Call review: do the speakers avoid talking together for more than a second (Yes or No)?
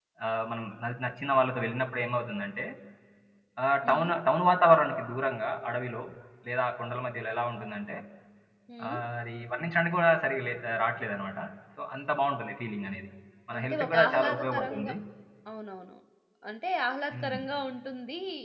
No